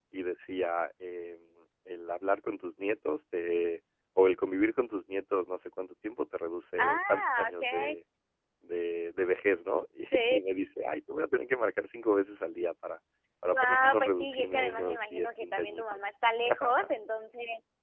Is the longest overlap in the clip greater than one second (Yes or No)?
Yes